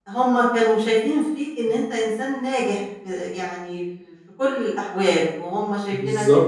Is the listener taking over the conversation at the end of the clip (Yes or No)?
No